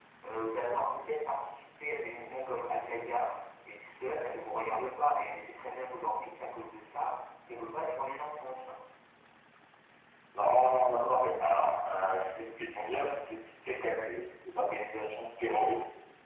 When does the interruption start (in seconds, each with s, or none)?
none